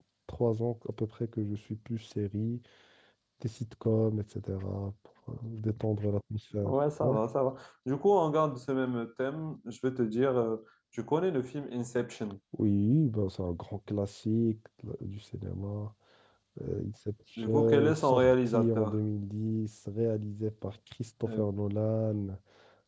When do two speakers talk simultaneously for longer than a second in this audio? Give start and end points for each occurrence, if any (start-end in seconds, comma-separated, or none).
17.4-19.0